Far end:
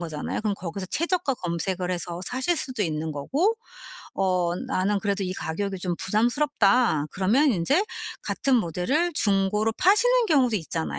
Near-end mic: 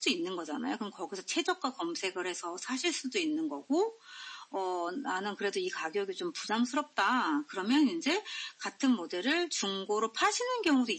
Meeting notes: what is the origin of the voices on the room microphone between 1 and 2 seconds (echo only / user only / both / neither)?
echo only